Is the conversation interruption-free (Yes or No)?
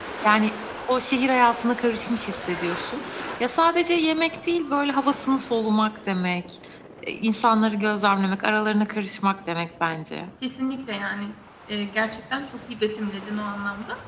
Yes